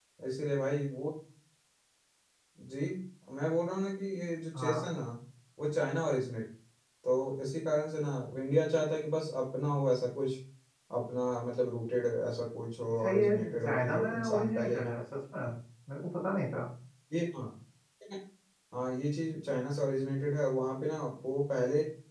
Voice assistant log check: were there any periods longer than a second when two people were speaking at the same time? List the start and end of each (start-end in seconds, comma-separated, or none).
13.0-14.9